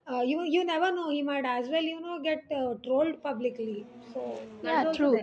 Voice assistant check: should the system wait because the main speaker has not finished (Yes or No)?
No